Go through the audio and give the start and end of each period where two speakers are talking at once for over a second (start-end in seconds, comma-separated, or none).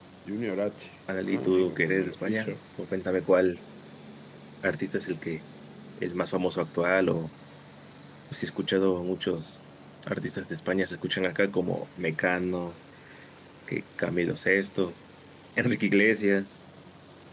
1.2-2.6